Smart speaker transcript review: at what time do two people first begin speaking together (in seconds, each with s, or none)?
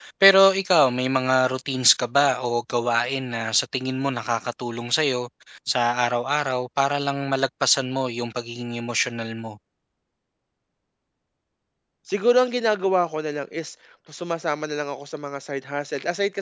none